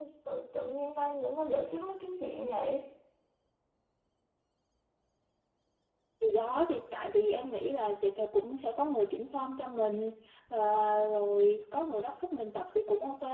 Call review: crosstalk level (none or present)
none